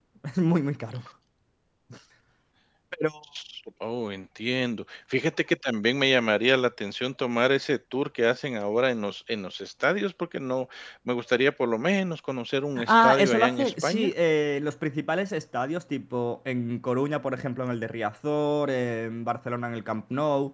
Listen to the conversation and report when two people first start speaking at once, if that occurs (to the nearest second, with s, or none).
13 s